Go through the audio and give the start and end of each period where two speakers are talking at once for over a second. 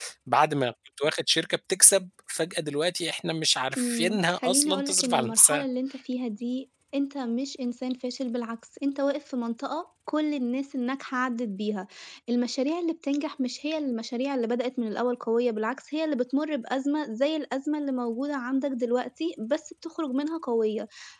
3.8-5.6

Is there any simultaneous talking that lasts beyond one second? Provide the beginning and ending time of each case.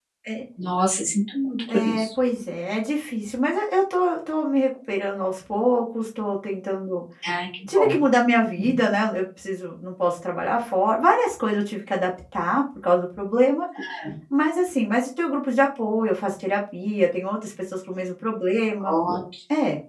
none

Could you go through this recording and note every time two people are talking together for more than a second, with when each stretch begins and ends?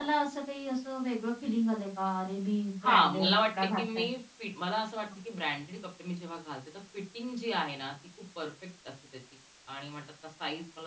2.8-4.0

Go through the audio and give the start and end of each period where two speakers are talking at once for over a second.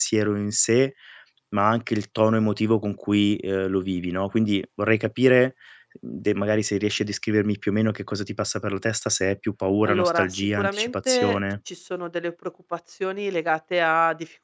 9.9-11.4

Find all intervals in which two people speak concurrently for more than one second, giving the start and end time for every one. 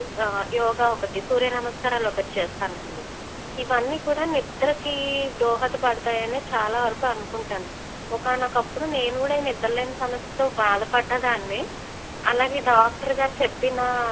none

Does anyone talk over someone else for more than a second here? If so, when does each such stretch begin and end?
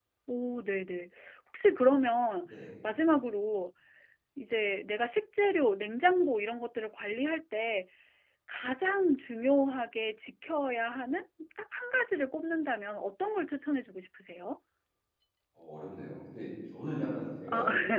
none

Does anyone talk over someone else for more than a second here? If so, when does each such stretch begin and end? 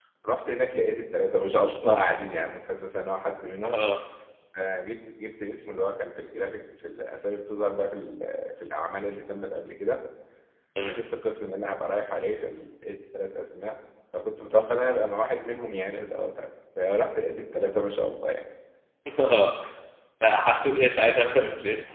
none

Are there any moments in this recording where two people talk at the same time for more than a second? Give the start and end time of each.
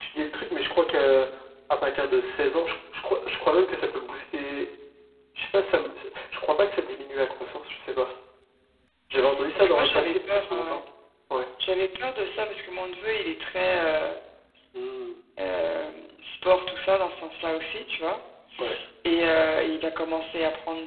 9.6-10.8

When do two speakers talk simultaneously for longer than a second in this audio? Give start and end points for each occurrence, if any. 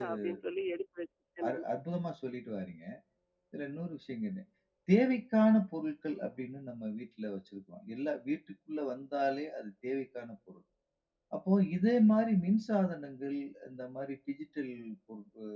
none

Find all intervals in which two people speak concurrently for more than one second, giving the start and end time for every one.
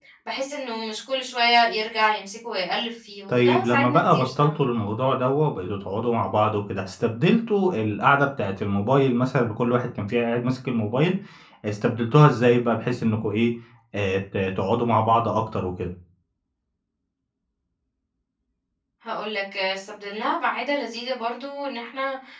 3.3-4.5

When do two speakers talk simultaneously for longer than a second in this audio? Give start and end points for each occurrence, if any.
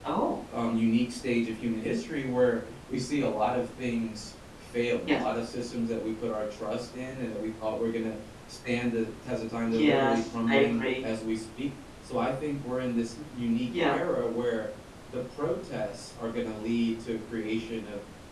9.7-11.0

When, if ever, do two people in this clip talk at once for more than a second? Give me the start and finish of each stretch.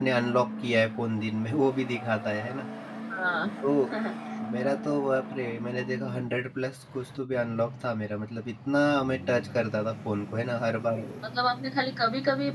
none

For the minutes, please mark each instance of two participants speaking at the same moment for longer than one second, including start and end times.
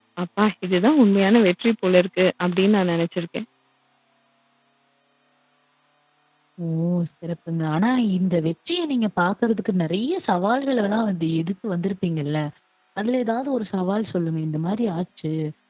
none

